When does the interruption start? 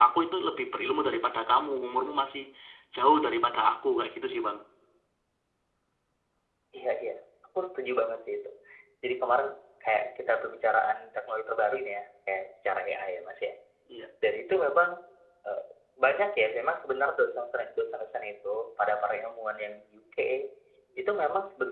none

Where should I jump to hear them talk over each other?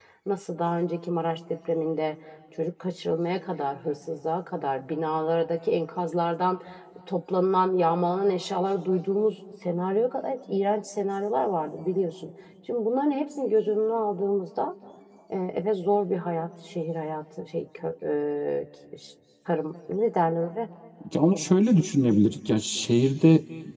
none

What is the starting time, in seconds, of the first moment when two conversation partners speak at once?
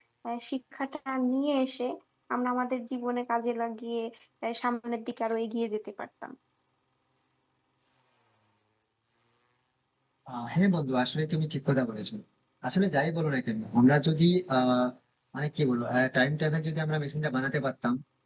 none

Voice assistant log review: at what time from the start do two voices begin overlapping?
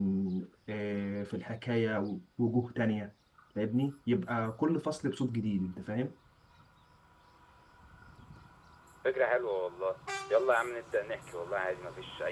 none

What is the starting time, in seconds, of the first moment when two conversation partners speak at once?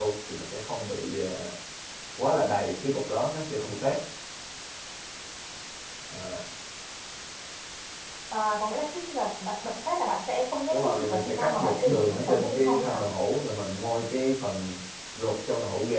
11 s

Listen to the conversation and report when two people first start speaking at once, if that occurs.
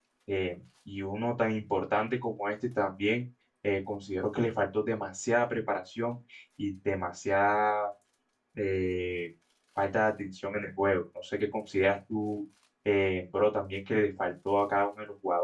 none

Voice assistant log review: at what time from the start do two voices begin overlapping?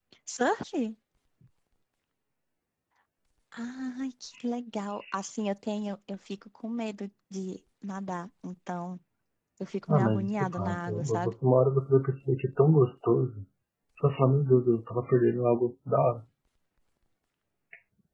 10 s

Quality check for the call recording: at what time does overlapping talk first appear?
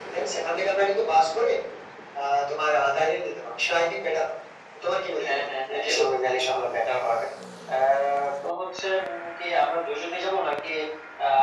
5 s

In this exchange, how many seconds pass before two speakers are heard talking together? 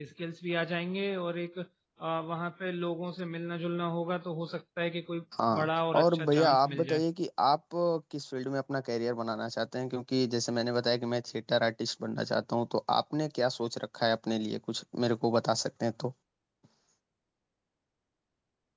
5 s

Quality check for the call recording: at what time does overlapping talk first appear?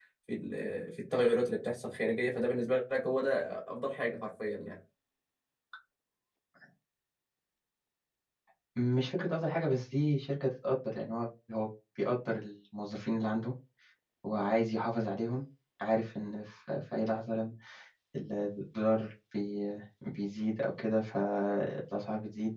none

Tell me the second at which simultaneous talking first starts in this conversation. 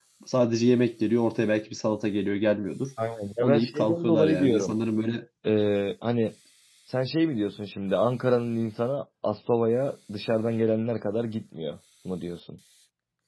3 s

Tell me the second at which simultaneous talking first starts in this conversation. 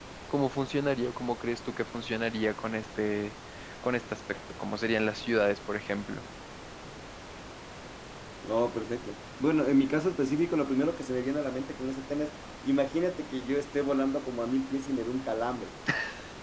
none

